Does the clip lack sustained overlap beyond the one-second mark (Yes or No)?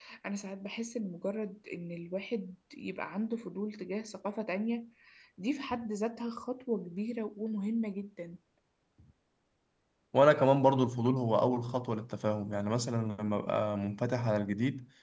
Yes